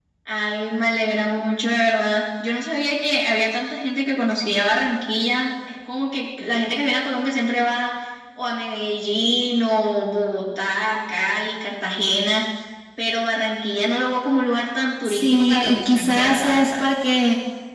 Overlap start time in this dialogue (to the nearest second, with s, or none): 15 s